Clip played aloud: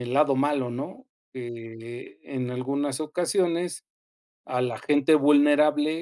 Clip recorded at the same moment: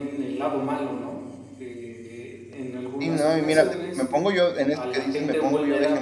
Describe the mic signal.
both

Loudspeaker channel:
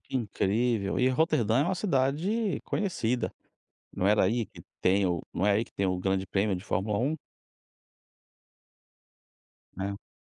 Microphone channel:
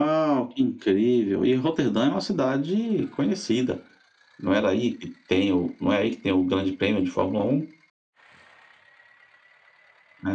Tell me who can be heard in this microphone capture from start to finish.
echo only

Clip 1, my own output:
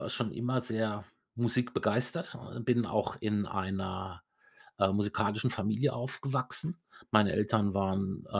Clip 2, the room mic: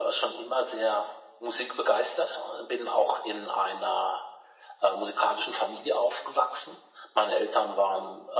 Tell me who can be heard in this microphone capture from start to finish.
echo only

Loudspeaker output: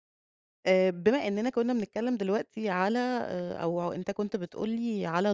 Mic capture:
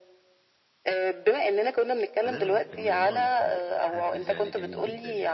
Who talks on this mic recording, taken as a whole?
both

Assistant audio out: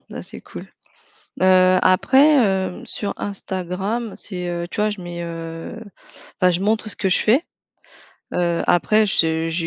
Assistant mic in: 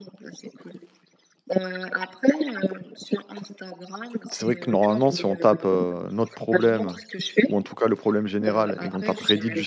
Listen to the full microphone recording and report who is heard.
both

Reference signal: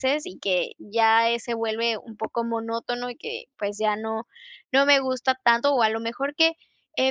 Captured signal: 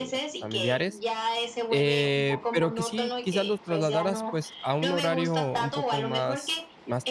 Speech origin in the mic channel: both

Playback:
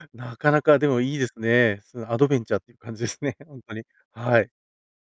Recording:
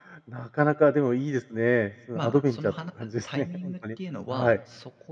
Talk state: both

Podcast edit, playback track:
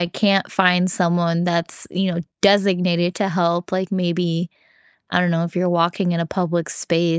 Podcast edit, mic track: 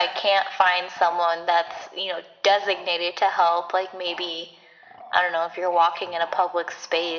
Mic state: echo only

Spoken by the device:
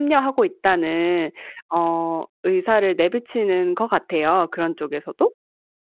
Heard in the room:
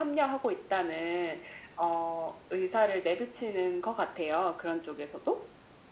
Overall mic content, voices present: echo only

